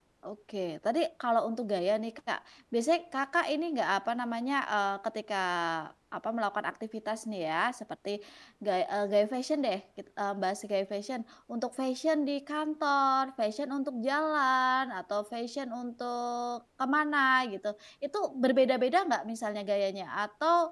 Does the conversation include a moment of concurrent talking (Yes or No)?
No